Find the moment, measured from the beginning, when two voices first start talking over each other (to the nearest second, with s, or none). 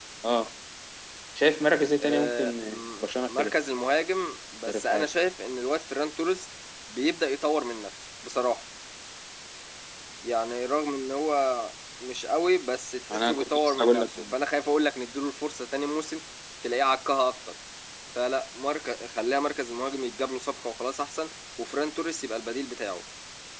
2 s